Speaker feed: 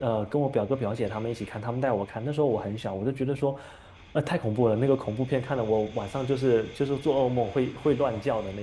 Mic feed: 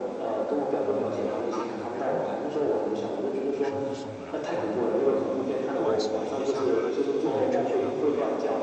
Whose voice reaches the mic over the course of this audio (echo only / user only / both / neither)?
both